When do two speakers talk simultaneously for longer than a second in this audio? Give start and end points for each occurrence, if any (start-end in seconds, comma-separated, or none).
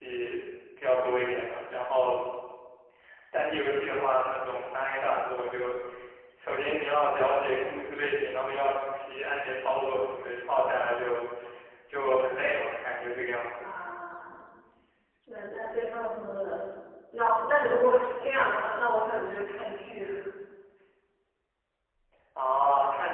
none